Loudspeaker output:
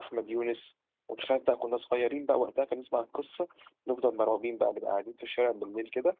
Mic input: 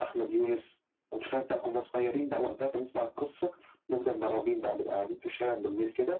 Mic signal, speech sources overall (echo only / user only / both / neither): echo only